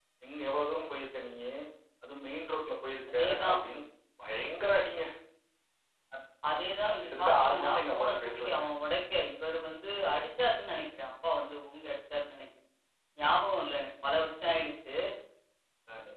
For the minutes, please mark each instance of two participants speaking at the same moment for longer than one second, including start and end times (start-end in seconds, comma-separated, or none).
6.8-8.6